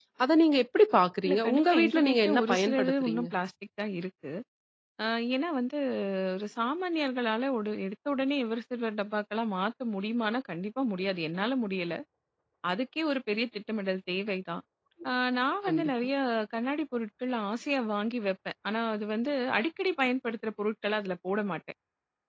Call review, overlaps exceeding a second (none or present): present